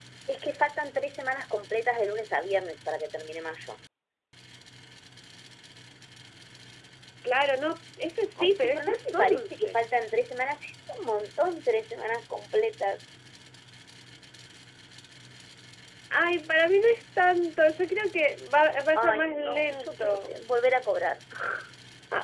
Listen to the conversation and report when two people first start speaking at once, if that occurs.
8 s

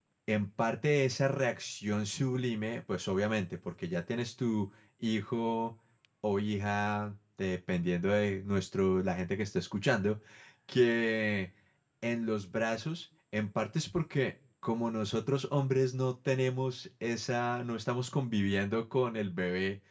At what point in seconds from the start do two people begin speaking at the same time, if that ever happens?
none

